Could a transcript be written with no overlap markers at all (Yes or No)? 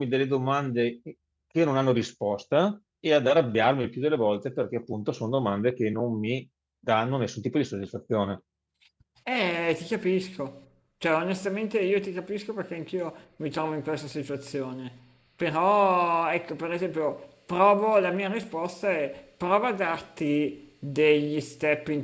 Yes